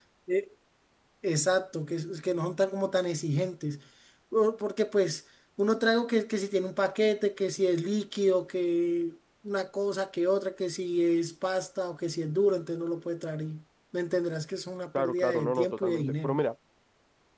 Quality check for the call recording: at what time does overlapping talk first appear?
14.9 s

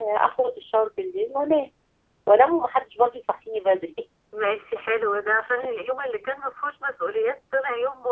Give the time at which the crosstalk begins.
none

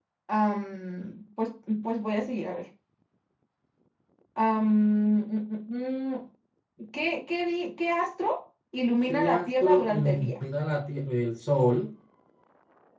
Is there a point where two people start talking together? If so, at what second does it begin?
9.0 s

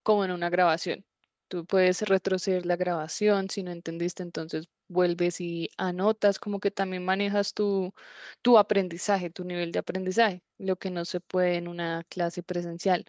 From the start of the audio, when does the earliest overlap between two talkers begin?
none

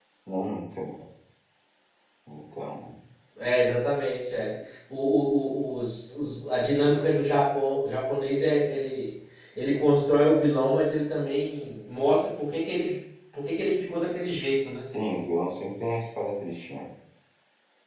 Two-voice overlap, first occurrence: none

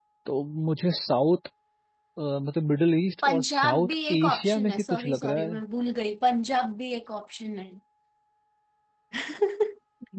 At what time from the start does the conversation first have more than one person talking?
3.2 s

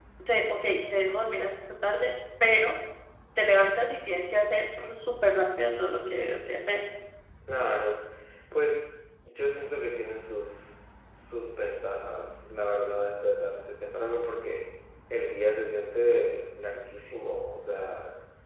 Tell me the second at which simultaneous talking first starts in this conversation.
none

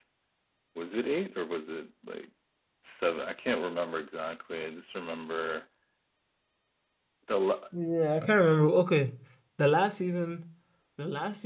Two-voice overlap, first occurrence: none

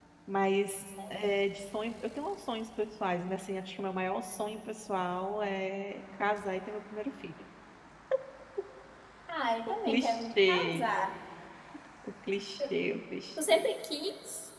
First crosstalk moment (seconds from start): 9.7 s

